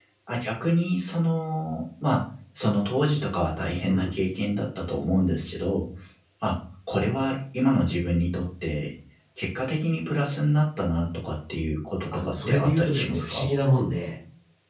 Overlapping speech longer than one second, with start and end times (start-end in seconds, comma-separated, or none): 12.1-13.5